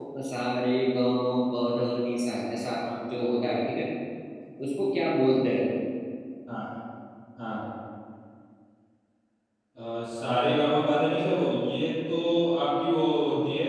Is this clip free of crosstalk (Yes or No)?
Yes